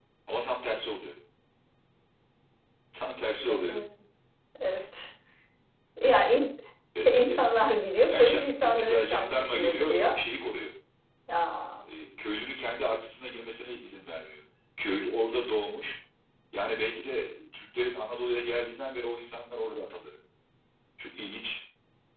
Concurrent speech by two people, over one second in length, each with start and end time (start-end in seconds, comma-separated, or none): 8.1-10.1